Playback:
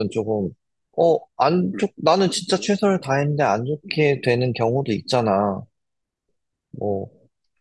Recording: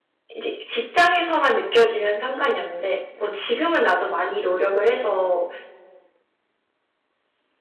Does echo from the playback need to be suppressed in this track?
No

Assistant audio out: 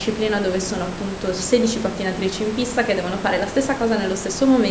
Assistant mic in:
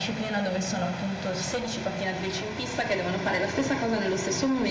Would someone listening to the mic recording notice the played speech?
Yes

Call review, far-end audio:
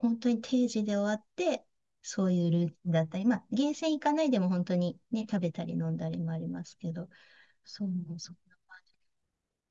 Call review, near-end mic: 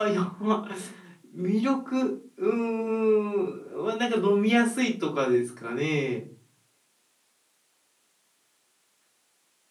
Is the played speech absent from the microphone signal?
Yes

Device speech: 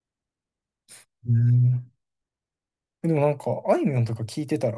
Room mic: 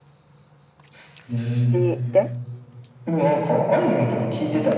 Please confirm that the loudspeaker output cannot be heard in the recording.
No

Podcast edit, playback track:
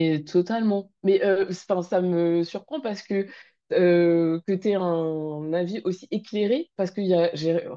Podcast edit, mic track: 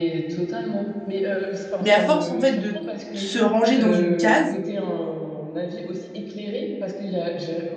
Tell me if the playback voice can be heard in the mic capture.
Yes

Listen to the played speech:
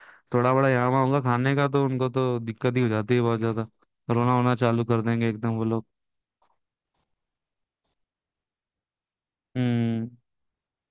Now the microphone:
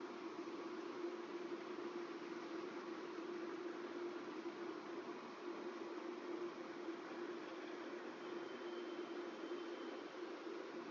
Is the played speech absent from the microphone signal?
Yes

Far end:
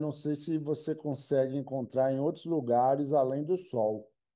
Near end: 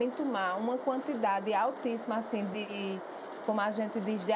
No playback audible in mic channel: Yes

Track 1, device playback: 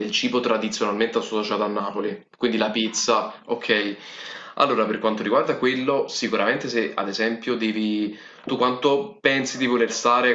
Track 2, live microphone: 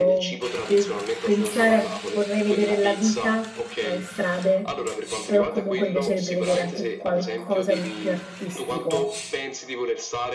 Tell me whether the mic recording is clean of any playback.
No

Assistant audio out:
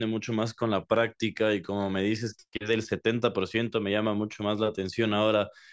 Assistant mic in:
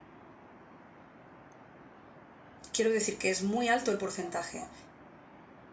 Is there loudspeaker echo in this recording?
No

